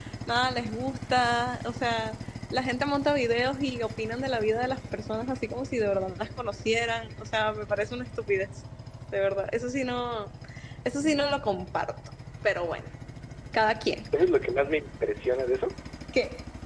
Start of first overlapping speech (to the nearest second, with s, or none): none